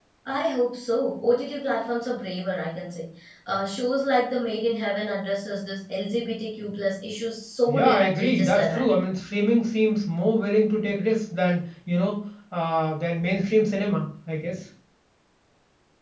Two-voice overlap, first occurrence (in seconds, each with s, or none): 7.7 s